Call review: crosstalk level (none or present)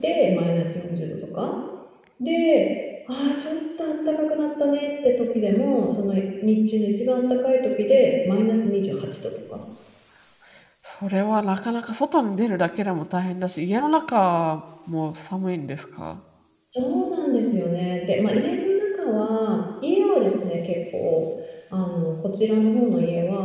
none